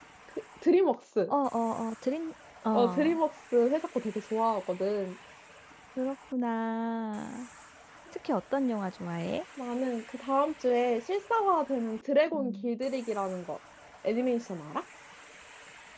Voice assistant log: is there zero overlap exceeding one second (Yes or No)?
Yes